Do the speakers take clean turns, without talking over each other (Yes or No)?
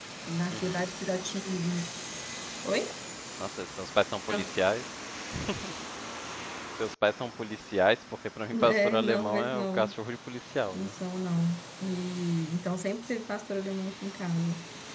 No